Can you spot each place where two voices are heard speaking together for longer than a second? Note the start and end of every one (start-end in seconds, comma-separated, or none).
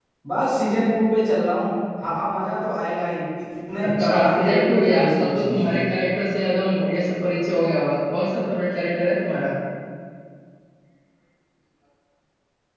3.8-5.8